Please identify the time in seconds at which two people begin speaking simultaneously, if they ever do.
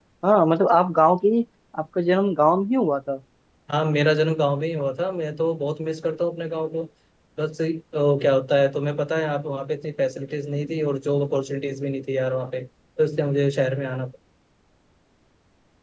none

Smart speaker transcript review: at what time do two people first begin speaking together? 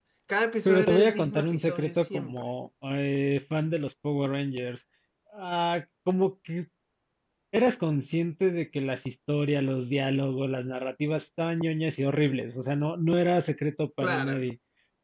0.7 s

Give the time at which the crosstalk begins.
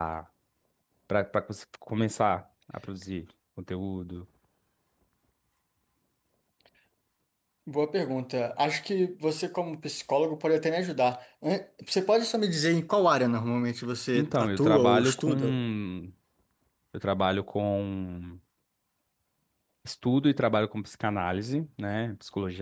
14.2 s

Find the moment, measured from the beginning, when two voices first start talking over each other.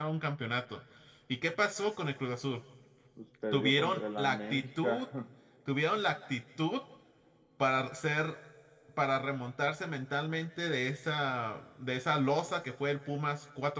3.5 s

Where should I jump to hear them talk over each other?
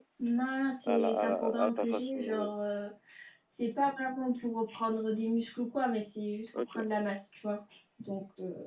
0.8 s

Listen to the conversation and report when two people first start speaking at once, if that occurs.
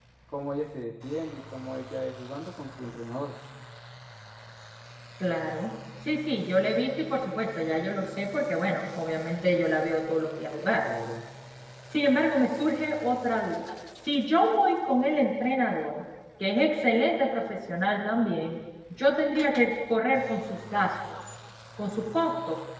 none

